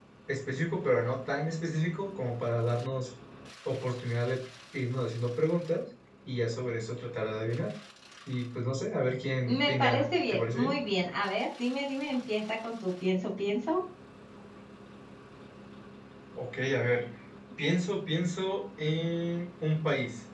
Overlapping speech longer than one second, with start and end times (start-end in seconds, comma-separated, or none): 9.5-10.8